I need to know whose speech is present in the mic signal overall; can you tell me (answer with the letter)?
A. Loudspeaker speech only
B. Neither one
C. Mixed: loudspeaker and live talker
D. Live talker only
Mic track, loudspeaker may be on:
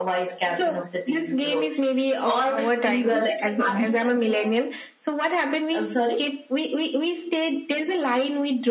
C